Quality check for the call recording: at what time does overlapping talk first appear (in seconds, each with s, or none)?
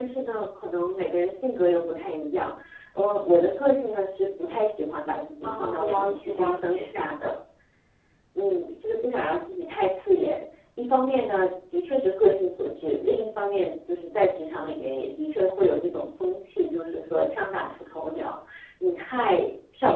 5.4 s